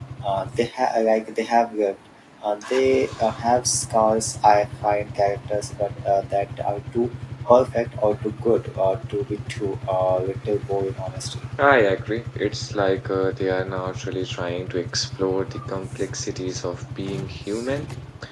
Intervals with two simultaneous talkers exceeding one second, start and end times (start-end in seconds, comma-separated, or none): none